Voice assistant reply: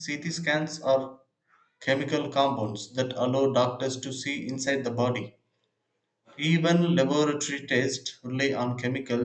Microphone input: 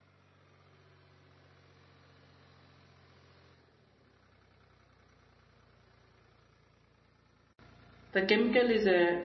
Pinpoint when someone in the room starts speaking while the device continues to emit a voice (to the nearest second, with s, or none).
8 s